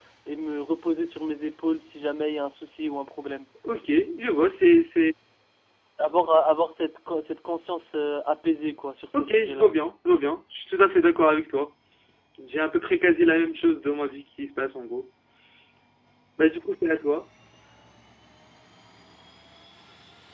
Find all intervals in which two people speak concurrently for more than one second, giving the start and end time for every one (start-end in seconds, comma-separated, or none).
none